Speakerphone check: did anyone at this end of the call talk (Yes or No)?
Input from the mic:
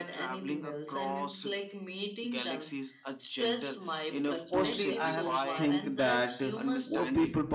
Yes